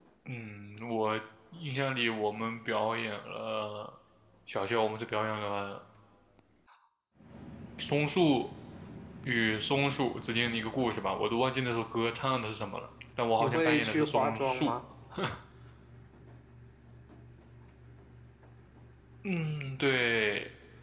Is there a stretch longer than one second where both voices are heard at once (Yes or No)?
Yes